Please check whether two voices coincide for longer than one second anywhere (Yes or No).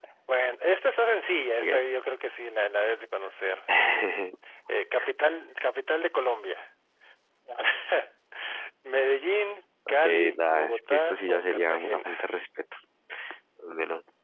Yes